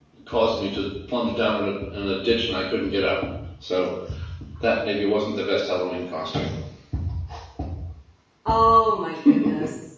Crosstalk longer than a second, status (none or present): none